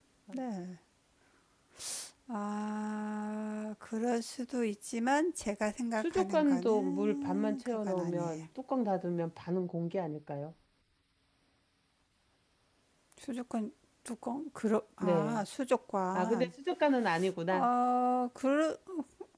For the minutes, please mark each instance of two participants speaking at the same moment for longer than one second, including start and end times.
6.0-8.4

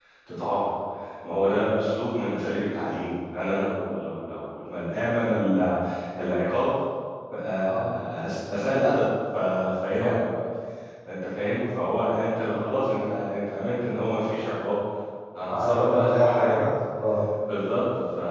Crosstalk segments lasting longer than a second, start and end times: 15.5-16.7

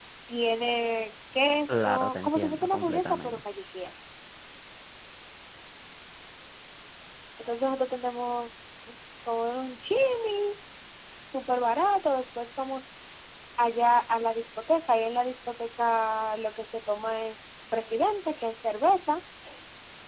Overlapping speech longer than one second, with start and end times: 1.7-3.4

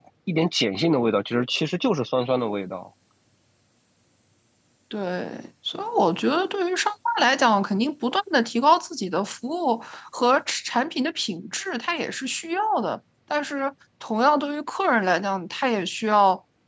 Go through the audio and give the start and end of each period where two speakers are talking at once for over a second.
none

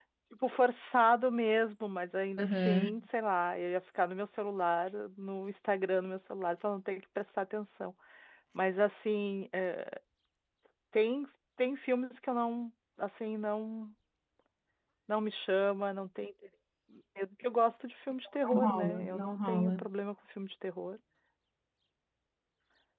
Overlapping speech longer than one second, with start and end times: 18.4-19.9

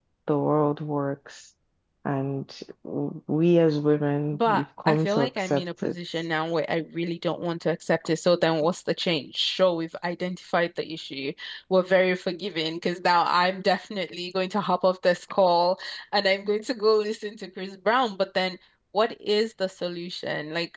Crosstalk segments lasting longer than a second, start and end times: 4.3-6.0

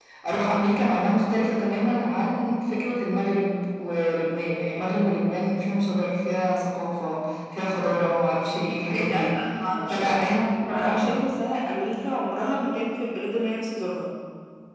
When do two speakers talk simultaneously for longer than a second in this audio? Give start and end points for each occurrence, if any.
none

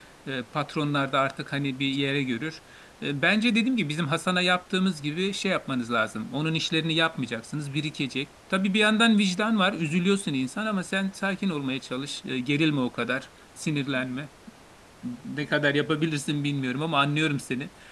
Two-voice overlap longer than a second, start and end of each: none

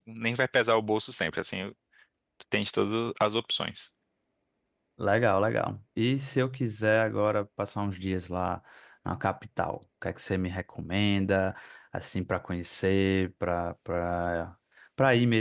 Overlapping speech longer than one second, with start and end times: none

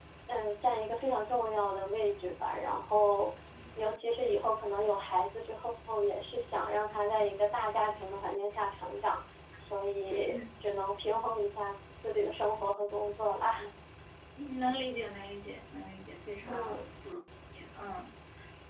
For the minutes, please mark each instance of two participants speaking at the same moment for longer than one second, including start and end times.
none

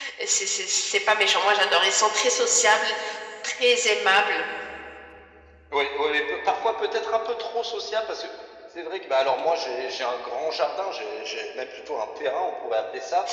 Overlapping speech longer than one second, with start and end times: none

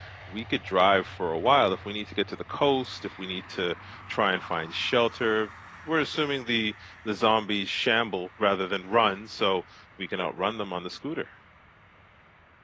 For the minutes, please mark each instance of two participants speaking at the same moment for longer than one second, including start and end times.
none

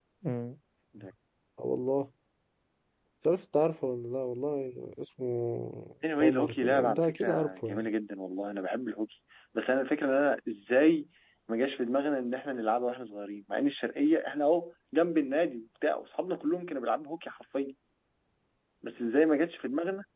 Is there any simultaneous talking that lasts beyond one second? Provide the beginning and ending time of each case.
6.2-7.9

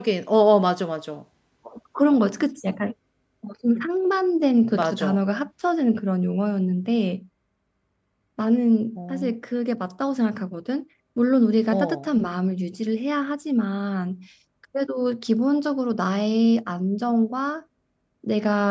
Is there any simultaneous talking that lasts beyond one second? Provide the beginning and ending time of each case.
none

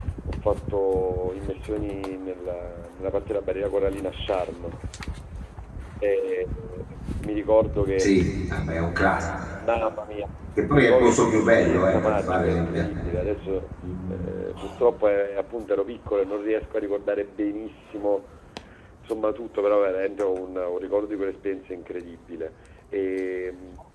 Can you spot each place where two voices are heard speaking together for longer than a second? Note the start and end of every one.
10.7-13.2

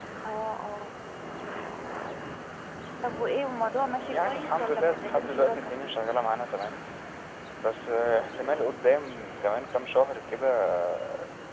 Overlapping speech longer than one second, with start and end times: 4.1-5.7

